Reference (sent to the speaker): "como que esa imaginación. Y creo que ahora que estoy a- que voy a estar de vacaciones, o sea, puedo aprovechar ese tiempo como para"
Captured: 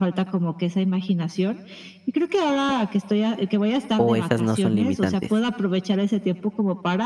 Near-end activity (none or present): present